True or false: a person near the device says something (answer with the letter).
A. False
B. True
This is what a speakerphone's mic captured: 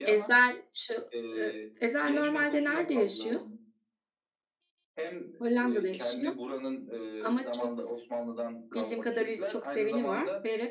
B